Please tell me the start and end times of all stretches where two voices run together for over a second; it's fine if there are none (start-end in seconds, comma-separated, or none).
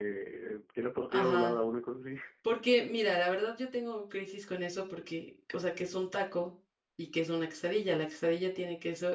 none